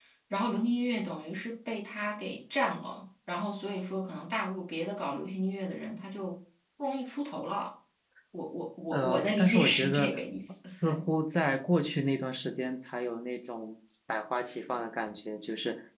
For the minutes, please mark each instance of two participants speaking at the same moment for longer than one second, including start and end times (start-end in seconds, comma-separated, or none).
8.9-10.2